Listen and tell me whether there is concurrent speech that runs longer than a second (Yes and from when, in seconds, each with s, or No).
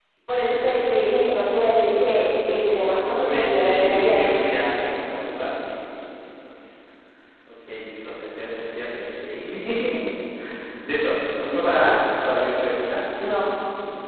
Yes, from 2.9 s